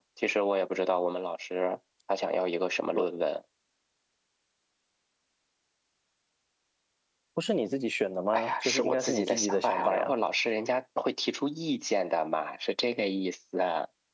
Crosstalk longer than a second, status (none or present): present